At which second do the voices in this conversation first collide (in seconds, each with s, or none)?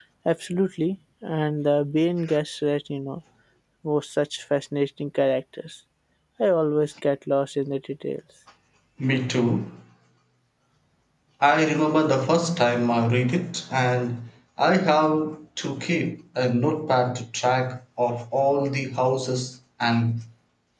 none